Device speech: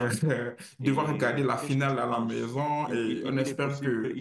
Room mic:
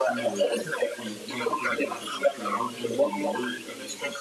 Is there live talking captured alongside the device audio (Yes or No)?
Yes